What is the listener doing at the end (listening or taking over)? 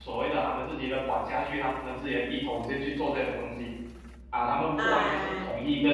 listening